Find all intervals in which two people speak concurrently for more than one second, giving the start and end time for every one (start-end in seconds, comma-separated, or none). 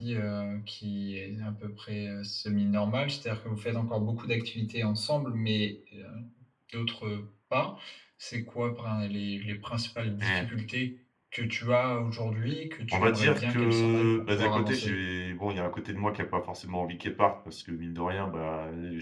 12.9-14.9